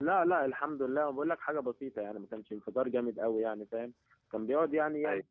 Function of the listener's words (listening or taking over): listening